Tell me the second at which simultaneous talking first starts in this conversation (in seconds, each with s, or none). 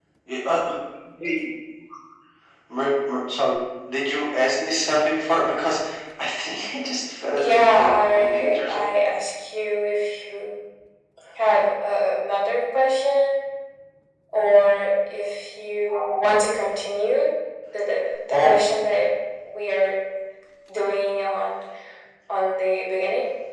7.4 s